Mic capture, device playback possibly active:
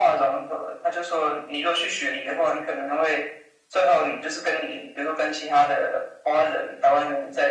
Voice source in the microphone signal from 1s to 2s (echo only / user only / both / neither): echo only